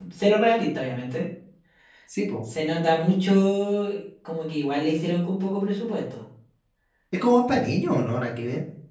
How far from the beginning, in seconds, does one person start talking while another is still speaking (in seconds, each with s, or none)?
none